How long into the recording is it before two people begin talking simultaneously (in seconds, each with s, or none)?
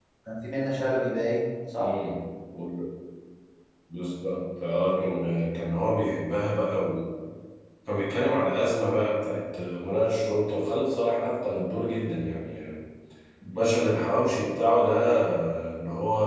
none